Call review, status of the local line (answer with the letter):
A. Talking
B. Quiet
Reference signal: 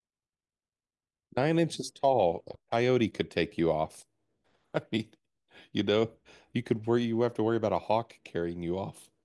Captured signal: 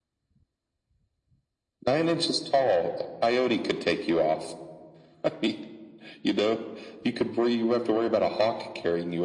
B